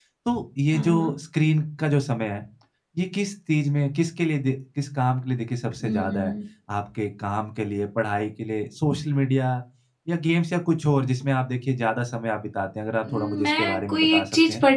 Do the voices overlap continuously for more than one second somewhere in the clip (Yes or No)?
Yes